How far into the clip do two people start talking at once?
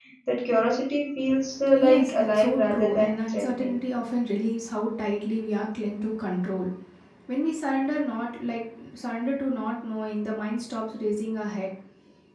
1.7 s

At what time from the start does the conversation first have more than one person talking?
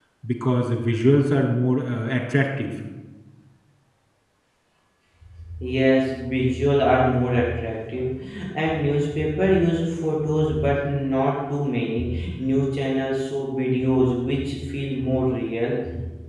none

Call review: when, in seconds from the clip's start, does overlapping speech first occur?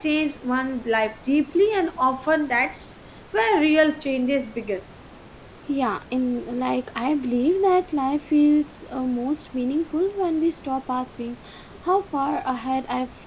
none

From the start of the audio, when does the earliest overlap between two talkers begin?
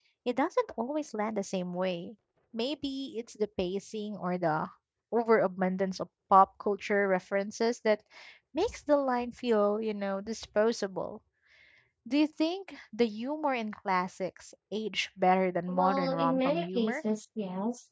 15.7 s

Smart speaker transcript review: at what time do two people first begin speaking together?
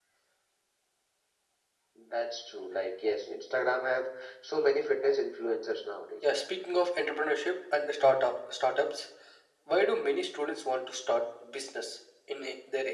none

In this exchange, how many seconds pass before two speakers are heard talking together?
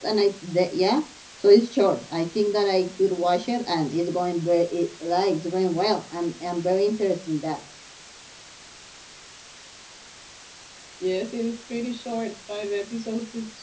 none

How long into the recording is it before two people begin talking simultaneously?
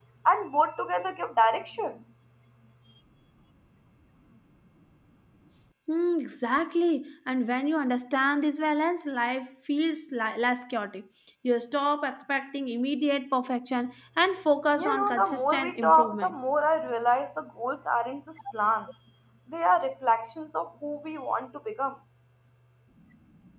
14.7 s

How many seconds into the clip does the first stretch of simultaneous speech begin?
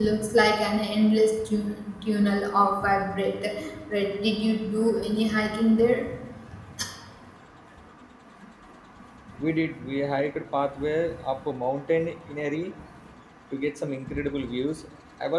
none

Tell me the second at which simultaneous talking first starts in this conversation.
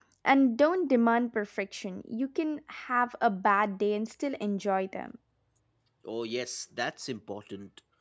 none

